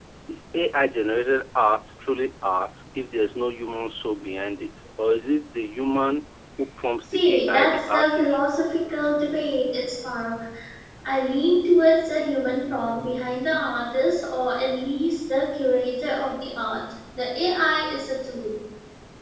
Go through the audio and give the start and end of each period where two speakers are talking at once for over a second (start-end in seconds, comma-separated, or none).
7.1-8.4